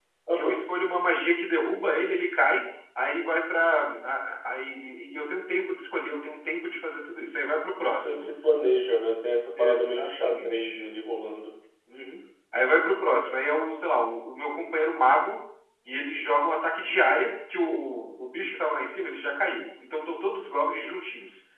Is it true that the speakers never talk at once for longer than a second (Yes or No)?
No